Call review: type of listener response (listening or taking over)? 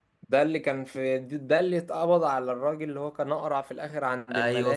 taking over